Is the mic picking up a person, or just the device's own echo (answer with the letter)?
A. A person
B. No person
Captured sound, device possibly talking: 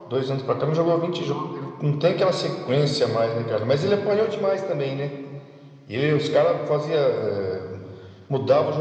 B